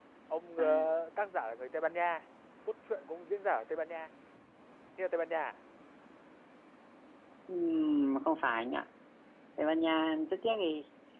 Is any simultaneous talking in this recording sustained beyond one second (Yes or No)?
No